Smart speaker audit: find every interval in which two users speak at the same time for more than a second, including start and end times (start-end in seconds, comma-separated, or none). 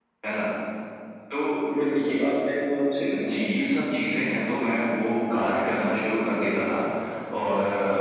none